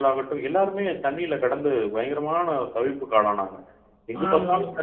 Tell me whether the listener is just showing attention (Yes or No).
Yes